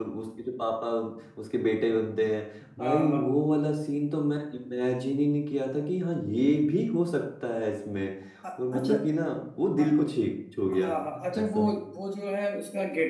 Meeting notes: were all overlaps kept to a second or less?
Yes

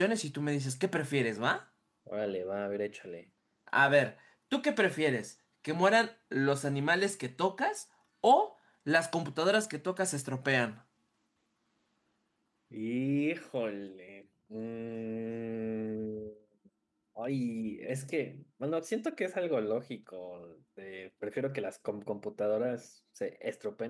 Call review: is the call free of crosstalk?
Yes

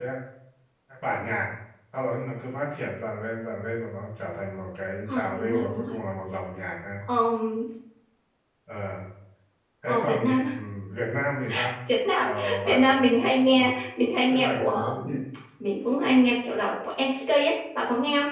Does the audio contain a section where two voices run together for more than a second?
Yes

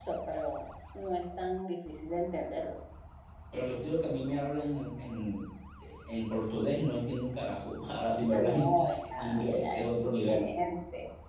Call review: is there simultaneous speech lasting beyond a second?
Yes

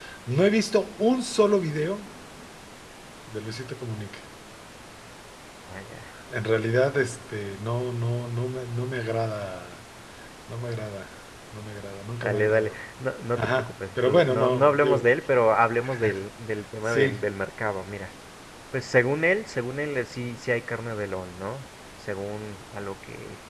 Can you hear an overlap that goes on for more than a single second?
Yes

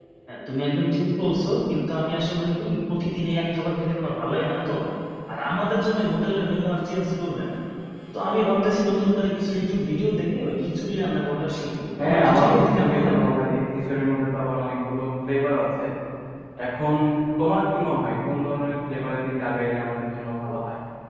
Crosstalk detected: Yes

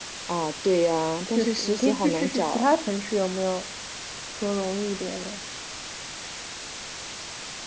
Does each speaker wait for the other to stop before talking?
No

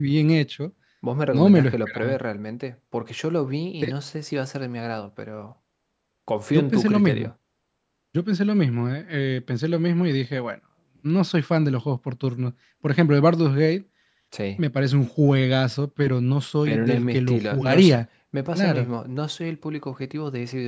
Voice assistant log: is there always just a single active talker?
No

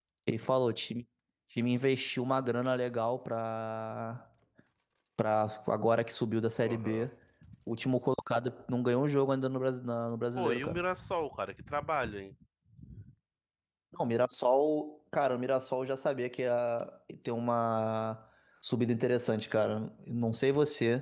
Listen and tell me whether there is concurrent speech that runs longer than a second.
No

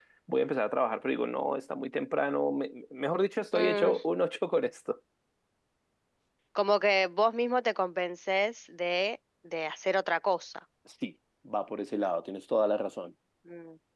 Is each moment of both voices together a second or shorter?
Yes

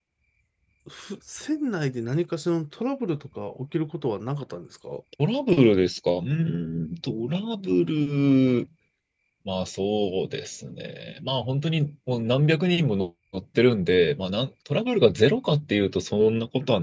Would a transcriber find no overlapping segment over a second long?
Yes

